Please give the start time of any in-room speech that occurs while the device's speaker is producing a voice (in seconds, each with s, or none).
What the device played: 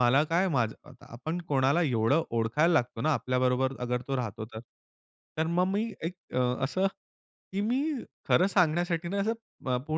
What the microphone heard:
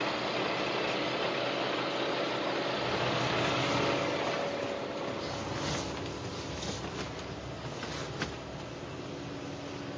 none